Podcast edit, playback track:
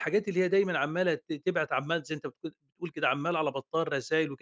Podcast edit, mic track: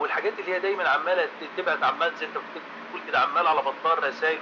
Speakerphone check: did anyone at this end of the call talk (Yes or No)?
No